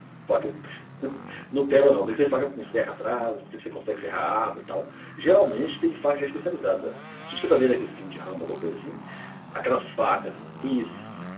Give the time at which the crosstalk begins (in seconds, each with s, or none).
none